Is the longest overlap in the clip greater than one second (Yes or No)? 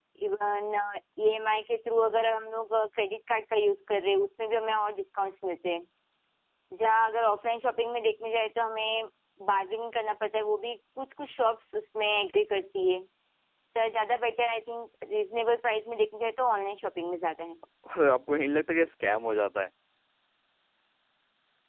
No